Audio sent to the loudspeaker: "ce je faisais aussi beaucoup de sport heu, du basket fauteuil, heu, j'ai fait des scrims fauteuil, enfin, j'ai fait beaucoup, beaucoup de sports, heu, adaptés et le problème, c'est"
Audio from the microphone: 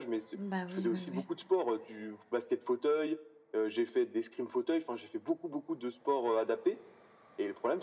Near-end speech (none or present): present